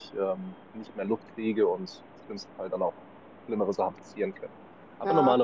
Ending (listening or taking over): listening